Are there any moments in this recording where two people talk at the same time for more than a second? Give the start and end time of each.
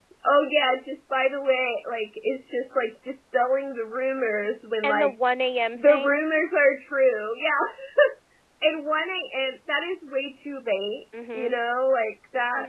none

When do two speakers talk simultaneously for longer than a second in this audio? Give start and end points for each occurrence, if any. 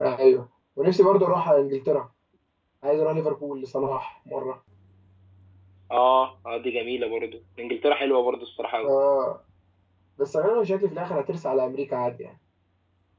none

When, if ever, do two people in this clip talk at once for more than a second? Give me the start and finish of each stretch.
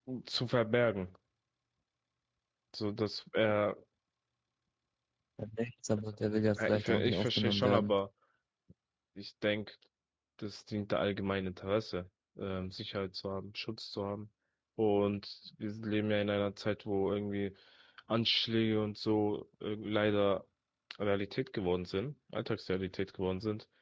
6.7-7.9

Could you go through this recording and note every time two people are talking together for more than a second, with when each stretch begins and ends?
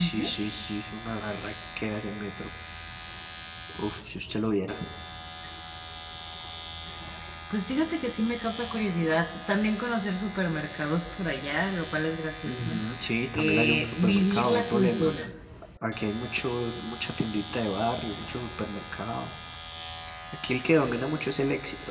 13.4-15.1

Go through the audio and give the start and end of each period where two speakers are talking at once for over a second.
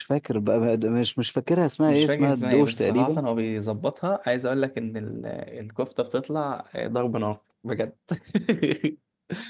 1.9-3.2

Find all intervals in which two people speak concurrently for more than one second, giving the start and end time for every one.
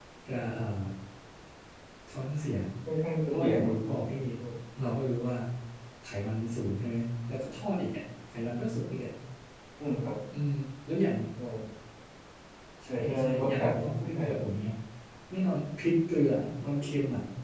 12.9-14.2

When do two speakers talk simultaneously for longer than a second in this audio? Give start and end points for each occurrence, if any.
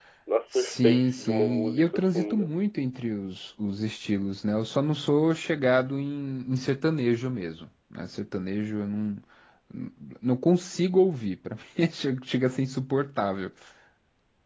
0.5-2.5

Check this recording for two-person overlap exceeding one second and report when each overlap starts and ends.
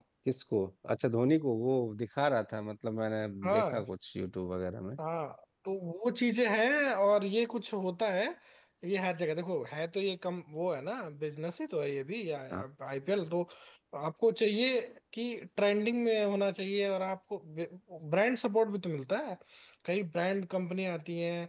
none

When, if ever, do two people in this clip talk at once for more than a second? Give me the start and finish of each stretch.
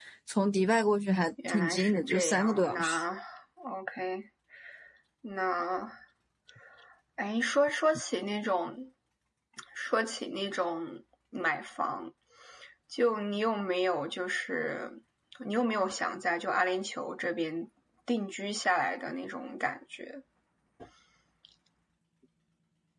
1.5-3.0

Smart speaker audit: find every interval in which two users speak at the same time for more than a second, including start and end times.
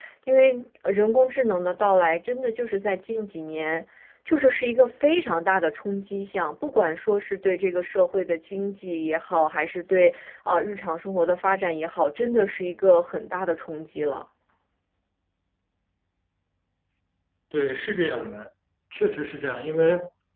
none

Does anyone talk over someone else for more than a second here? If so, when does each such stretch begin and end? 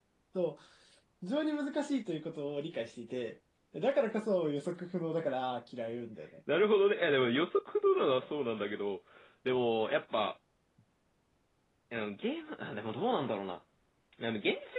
none

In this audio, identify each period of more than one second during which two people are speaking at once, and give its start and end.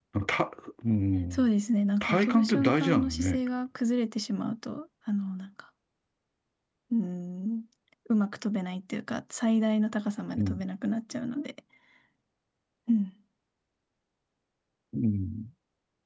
2.0-3.4

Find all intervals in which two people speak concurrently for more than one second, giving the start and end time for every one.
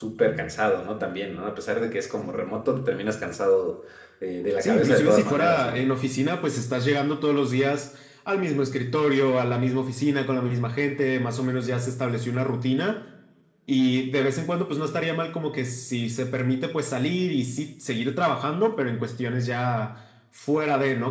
4.6-5.8

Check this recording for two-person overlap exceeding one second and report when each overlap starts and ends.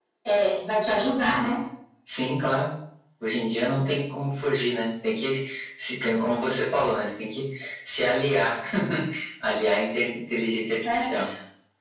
none

